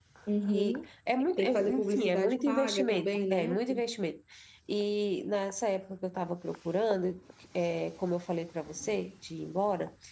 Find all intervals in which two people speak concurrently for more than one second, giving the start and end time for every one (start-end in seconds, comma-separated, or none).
1.4-3.5